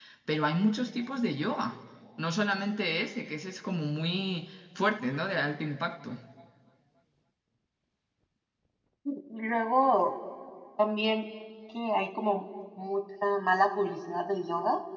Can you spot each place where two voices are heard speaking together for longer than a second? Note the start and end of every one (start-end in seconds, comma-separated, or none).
none